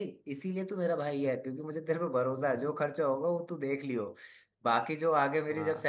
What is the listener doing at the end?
listening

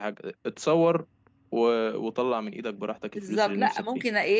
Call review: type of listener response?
taking over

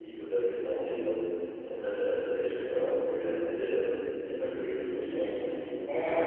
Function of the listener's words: taking over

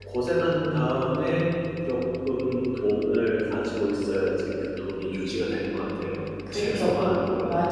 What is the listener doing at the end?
taking over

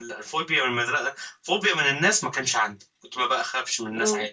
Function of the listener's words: listening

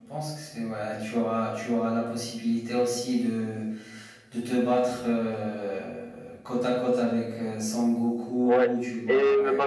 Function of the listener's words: taking over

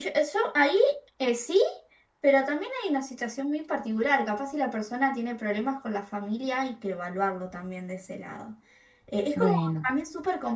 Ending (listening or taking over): listening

